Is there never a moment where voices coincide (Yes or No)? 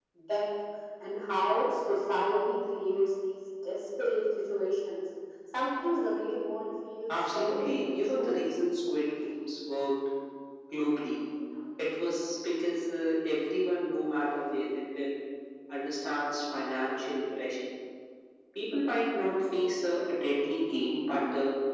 No